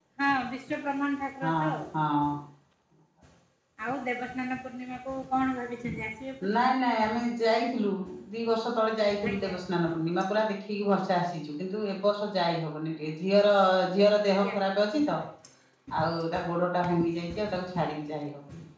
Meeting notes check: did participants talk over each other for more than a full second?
No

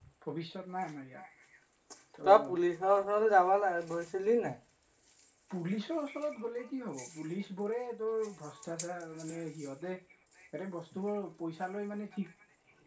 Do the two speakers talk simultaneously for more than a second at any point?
No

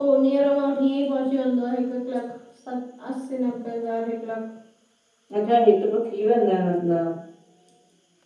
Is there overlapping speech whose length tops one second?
No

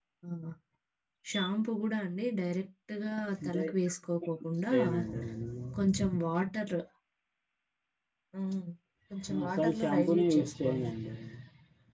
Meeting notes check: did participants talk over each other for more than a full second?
Yes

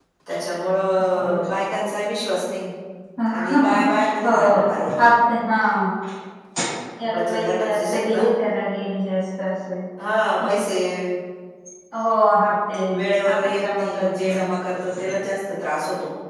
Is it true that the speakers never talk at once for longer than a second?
No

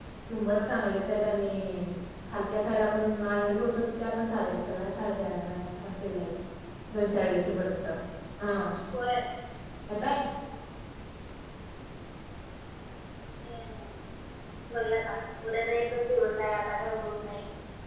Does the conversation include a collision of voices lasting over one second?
No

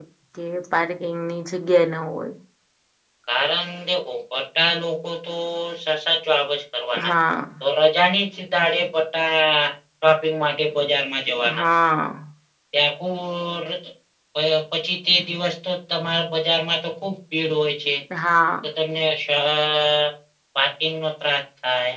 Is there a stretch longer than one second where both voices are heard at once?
No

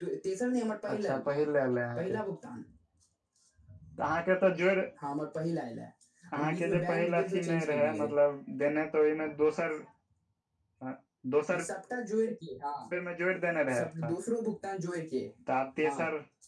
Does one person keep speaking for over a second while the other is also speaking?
Yes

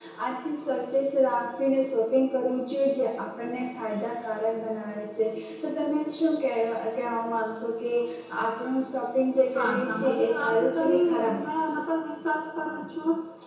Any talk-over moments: Yes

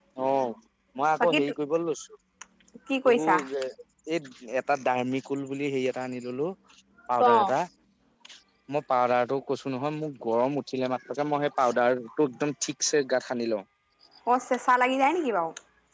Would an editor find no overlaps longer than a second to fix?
Yes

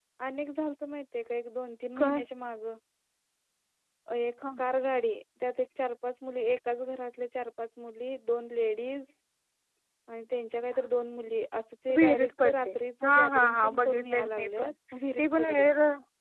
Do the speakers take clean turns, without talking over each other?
No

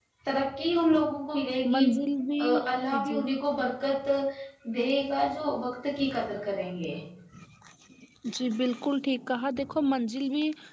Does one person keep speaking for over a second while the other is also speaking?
No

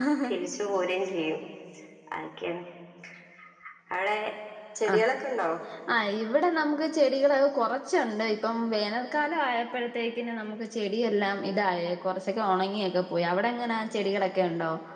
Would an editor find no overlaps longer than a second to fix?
Yes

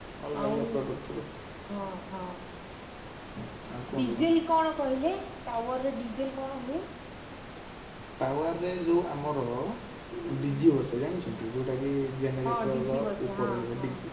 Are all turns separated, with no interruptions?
No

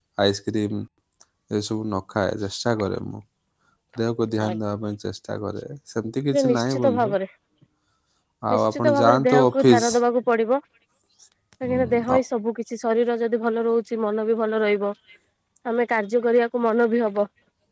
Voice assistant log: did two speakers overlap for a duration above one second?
Yes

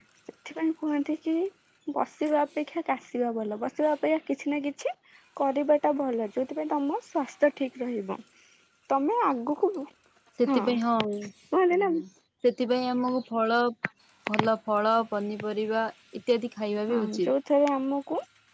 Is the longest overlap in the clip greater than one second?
No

